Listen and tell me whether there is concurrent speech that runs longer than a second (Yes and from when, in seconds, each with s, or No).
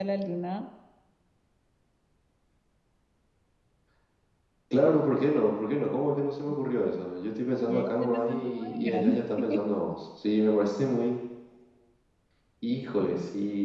Yes, from 7.7 s